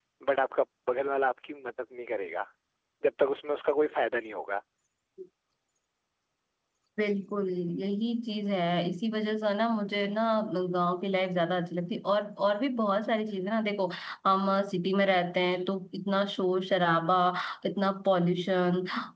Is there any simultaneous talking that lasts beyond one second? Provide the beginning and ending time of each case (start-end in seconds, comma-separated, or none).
none